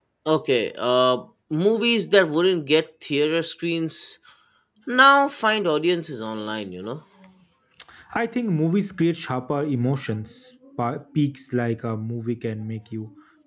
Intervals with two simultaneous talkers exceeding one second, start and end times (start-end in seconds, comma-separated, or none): none